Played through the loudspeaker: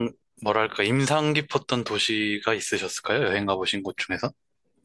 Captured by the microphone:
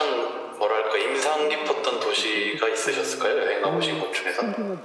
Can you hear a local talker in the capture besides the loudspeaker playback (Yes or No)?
Yes